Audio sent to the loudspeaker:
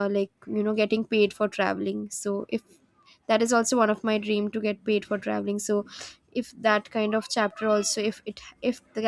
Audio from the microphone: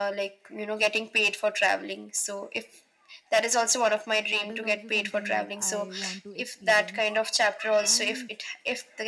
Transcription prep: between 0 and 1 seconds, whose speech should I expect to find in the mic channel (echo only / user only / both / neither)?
echo only